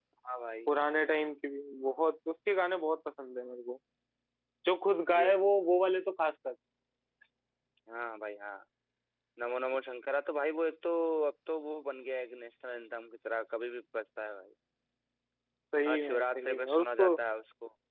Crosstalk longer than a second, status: present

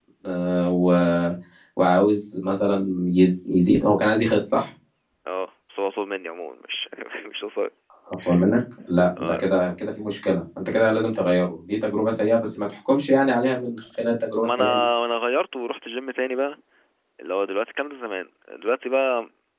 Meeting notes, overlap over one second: none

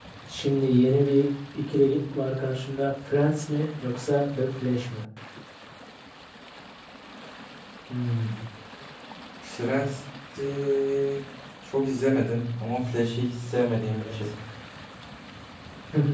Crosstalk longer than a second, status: none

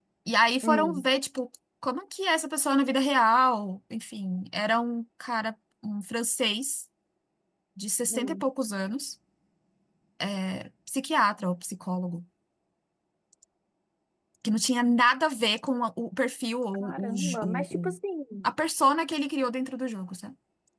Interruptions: present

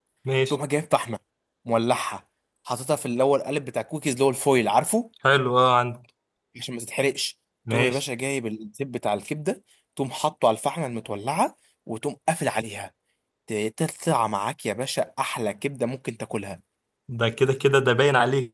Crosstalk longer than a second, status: none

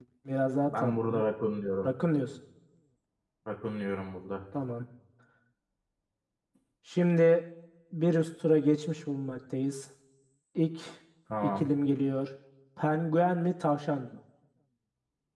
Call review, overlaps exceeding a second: none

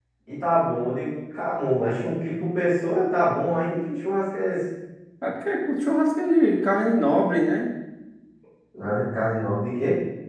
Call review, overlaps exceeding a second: none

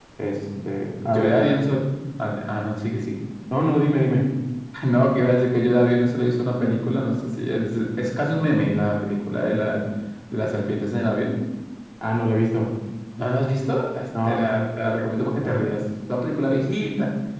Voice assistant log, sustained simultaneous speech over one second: present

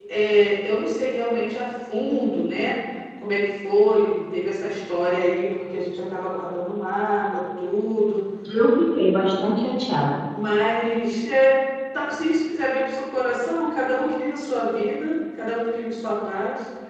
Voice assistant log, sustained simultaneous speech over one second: none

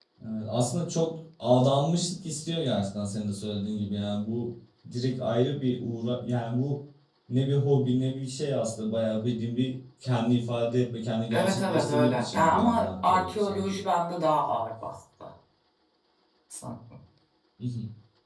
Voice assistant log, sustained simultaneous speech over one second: present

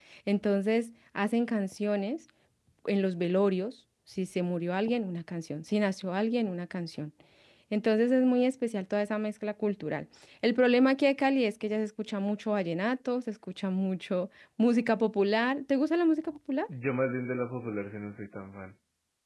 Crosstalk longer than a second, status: none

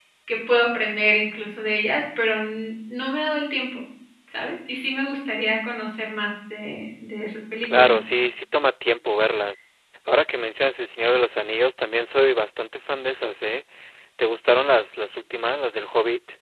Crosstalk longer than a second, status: none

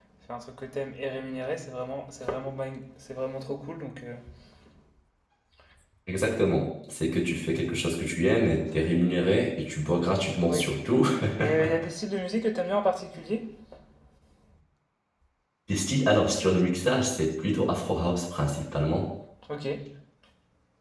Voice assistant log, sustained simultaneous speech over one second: none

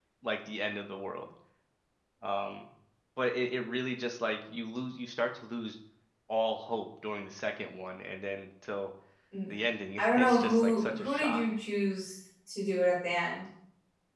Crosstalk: present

